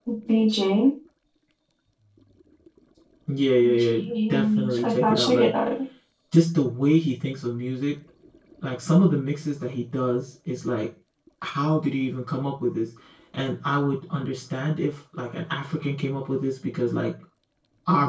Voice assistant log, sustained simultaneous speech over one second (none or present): present